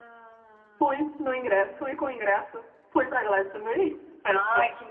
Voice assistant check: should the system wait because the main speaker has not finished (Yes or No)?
No